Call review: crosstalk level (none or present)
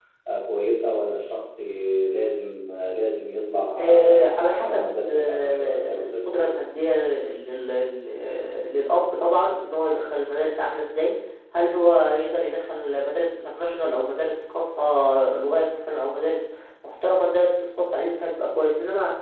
present